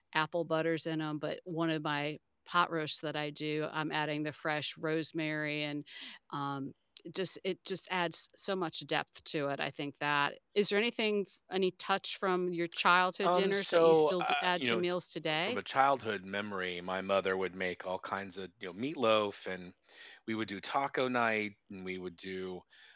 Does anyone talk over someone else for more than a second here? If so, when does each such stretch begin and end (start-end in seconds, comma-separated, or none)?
13.2-14.8